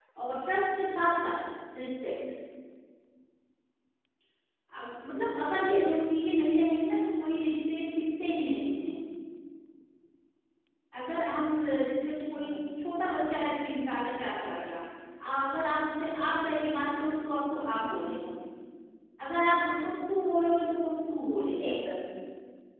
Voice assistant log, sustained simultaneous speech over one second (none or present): none